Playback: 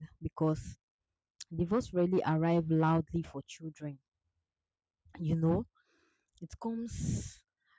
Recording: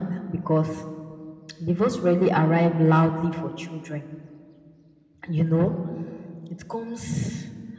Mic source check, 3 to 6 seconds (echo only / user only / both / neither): echo only